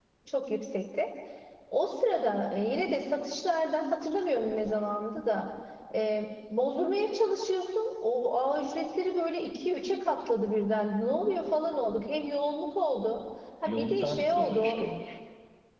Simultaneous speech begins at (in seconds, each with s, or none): 13.7 s